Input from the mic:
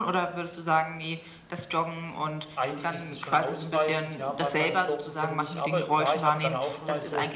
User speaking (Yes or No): Yes